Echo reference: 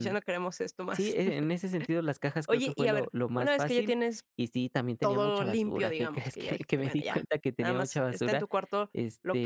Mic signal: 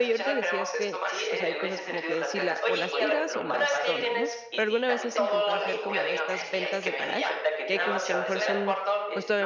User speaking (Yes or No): Yes